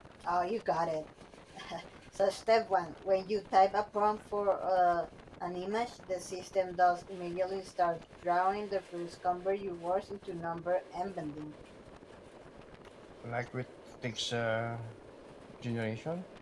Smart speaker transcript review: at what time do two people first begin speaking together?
none

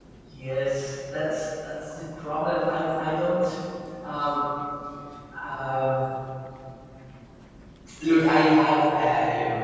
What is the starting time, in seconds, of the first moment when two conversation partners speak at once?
none

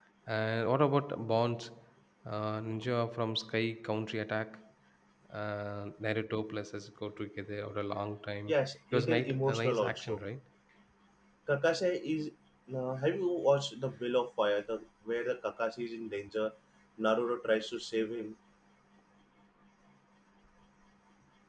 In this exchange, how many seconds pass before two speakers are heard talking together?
8.9 s

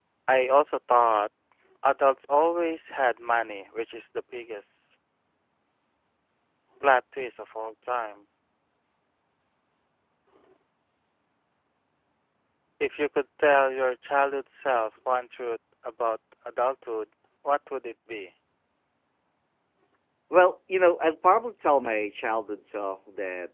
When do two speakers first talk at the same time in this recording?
none

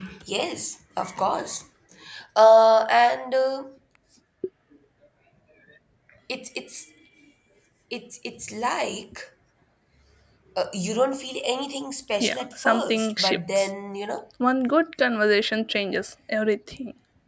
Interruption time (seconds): 12.2 s

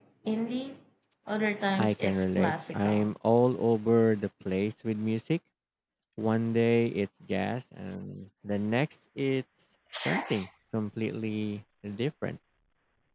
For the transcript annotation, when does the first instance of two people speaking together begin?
1.8 s

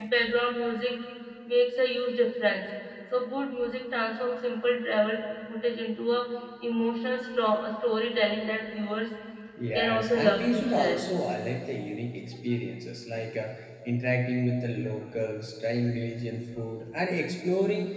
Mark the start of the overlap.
9.7 s

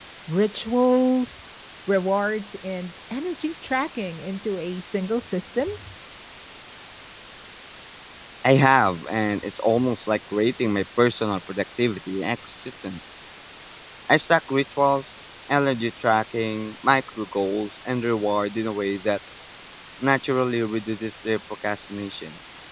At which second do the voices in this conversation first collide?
none

